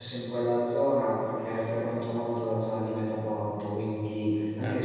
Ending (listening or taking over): listening